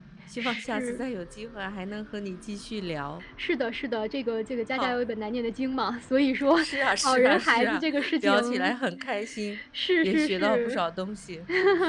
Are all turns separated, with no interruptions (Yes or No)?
No